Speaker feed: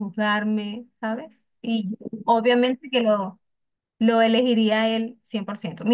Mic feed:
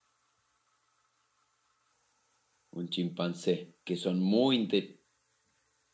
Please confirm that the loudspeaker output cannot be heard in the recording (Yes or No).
Yes